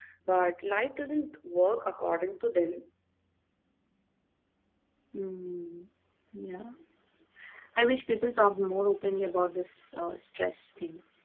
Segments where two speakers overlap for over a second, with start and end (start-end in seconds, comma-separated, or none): none